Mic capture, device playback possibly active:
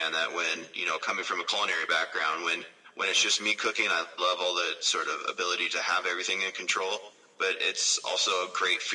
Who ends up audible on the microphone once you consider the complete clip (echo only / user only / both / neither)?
echo only